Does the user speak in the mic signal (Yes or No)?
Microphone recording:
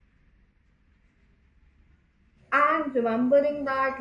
Yes